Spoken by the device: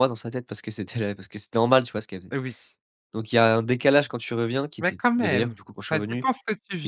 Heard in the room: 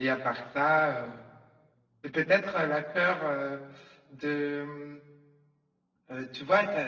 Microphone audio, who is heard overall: user only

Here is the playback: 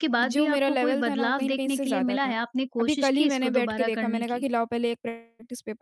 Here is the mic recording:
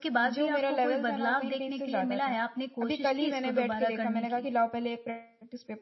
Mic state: echo only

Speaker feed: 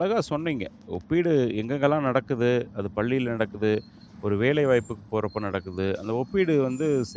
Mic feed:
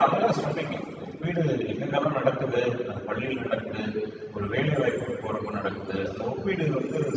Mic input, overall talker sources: echo only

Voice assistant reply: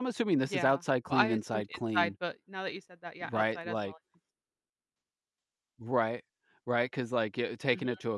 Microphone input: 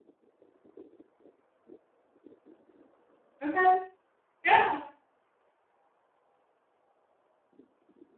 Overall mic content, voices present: user only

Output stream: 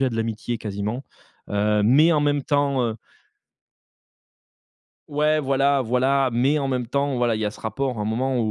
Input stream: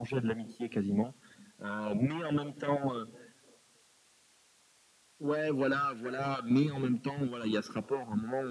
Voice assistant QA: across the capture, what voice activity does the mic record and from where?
echo only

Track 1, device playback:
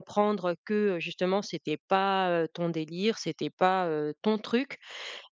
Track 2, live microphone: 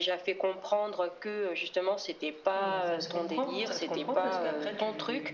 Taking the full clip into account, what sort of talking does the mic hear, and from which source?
both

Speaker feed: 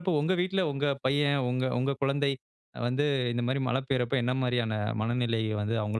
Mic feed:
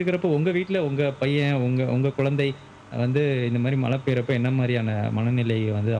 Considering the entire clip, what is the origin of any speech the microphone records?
echo only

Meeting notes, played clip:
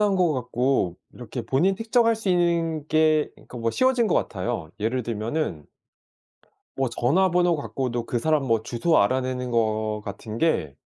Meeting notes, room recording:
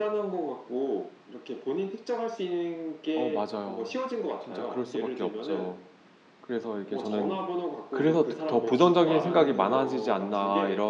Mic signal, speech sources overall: both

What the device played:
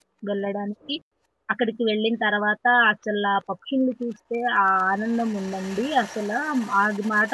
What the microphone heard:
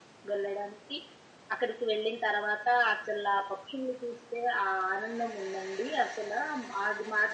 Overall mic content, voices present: echo only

